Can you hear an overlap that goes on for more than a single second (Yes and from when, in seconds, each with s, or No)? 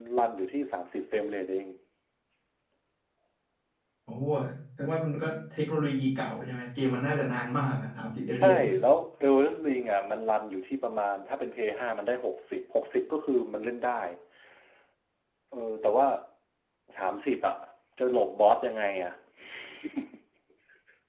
No